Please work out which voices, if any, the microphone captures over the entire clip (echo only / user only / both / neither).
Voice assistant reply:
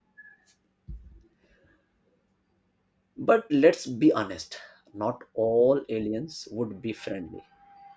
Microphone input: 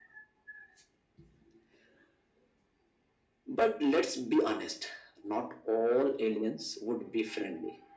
echo only